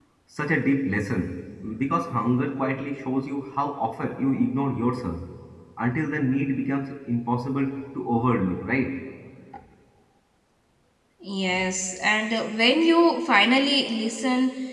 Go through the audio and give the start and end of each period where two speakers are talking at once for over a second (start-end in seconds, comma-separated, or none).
none